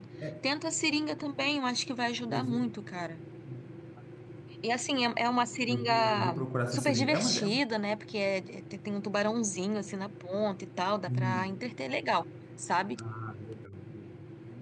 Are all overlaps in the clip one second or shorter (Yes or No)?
No